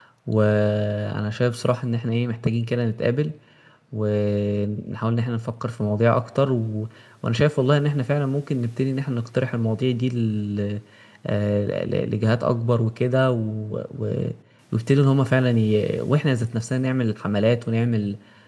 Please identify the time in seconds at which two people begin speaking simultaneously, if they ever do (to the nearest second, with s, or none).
none